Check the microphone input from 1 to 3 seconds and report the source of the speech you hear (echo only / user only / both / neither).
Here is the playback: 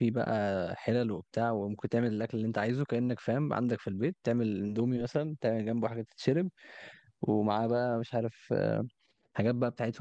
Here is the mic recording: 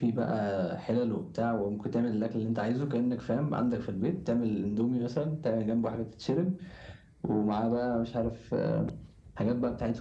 echo only